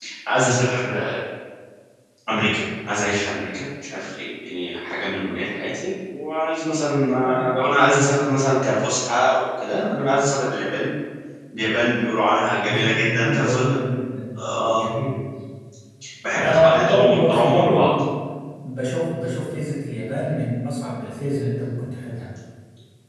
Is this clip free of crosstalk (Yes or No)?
No